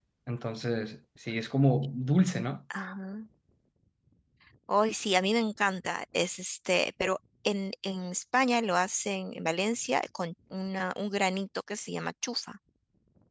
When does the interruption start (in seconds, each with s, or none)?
none